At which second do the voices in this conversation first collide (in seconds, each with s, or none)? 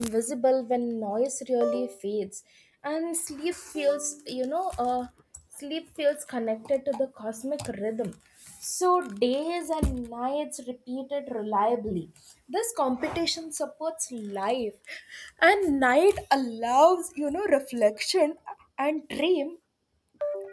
none